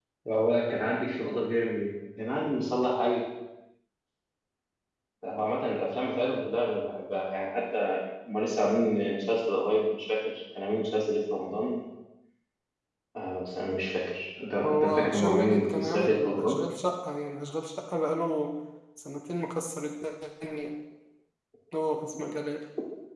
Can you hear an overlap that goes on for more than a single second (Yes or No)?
Yes